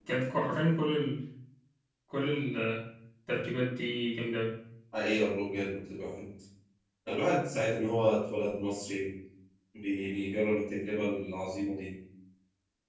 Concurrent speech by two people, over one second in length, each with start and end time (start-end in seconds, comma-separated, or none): none